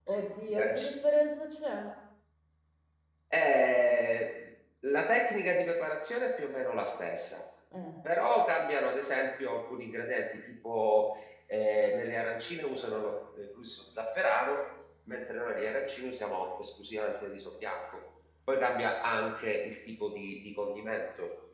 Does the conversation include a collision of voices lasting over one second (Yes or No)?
No